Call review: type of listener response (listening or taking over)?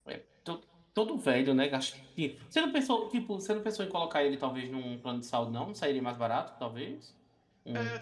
taking over